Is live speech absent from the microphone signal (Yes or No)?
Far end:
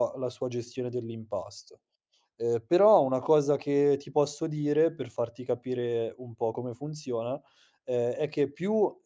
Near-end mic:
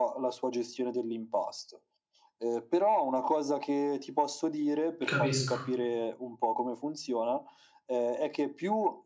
No